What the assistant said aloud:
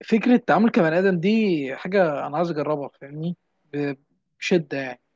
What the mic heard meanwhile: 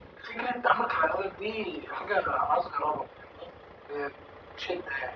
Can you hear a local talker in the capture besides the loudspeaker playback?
No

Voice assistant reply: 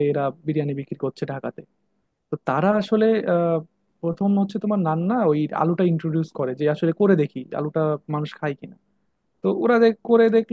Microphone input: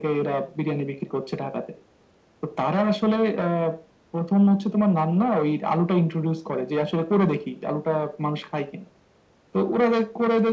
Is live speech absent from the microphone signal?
Yes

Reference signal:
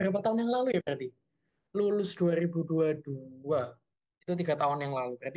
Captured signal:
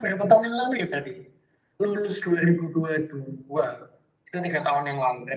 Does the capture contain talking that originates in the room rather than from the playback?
No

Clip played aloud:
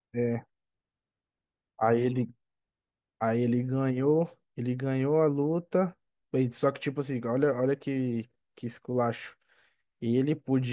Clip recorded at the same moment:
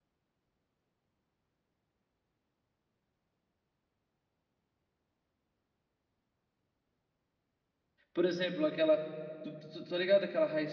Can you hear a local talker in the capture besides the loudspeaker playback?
Yes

